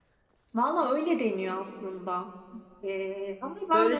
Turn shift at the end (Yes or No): Yes